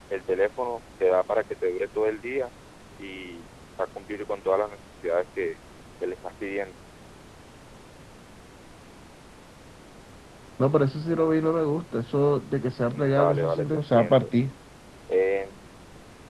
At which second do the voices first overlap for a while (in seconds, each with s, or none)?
12.8 s